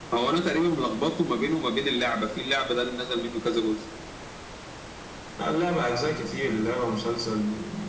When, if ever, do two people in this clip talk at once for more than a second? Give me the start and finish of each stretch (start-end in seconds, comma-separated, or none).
none